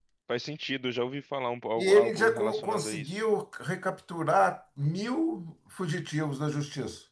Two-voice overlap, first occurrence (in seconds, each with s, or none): 1.8 s